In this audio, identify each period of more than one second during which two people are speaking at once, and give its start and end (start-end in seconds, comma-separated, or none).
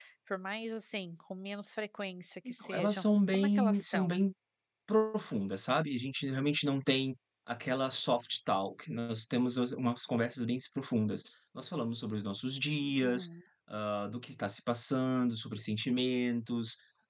2.5-4.1